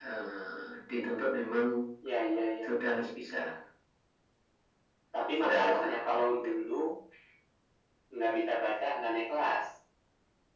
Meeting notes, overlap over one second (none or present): present